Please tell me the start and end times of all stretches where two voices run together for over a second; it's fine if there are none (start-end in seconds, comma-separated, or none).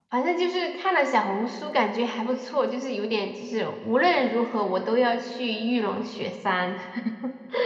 none